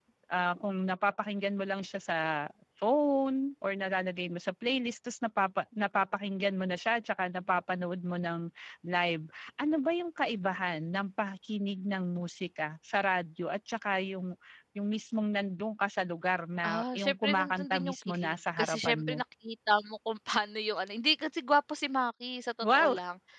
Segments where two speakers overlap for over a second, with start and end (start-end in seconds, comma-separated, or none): 16.6-19.2